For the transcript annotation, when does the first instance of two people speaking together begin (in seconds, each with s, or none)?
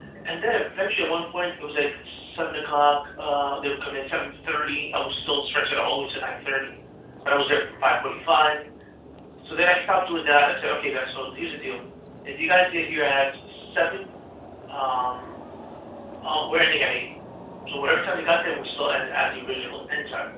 none